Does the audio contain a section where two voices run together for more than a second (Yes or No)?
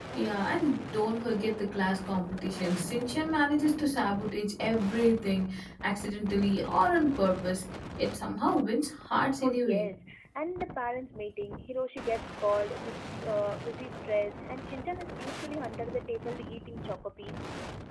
No